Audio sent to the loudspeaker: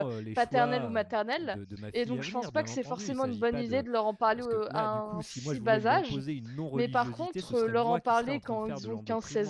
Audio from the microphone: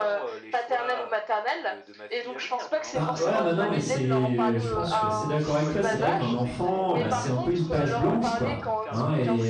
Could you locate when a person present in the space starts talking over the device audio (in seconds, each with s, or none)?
2.9 s